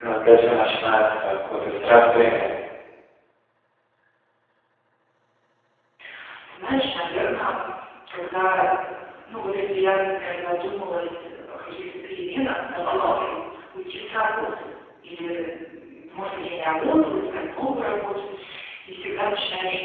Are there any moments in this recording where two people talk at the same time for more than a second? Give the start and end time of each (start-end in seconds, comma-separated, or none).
none